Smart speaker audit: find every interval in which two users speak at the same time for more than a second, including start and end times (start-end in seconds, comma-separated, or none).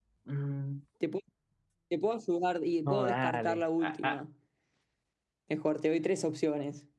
2.8-4.2